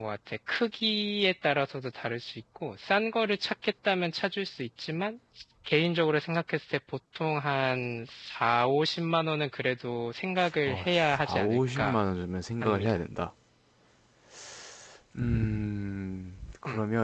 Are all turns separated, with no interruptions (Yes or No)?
No